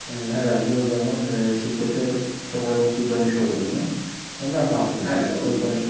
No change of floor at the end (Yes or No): No